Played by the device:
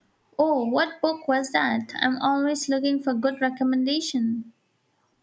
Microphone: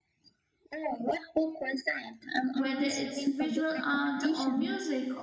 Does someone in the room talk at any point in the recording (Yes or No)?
Yes